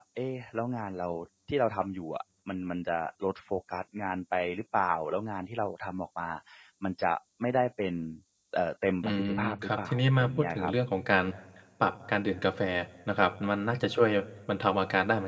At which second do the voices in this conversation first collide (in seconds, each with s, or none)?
9.0 s